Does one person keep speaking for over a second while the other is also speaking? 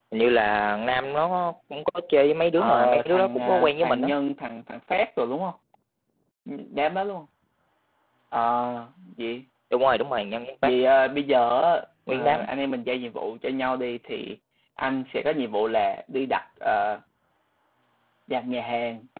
Yes, from 2.6 s

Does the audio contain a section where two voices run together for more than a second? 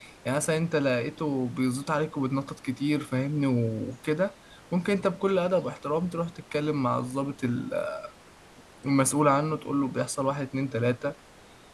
No

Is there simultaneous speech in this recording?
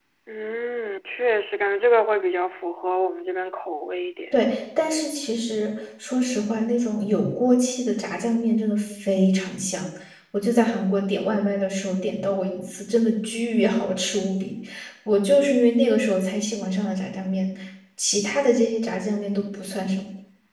No

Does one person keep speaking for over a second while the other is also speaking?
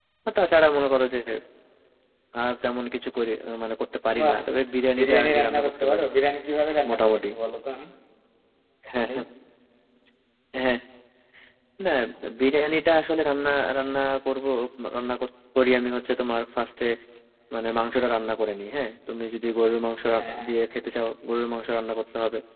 Yes, from 4.2 s

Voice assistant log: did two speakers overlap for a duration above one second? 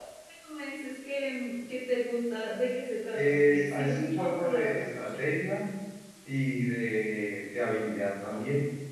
Yes, from 3.1 s

